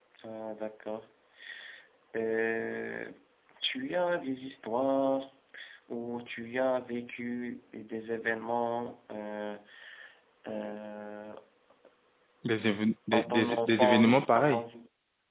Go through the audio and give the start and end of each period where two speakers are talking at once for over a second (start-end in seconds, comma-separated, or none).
13.1-14.6